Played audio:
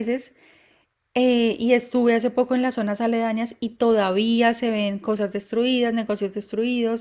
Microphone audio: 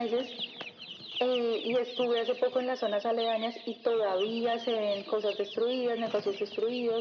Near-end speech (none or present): none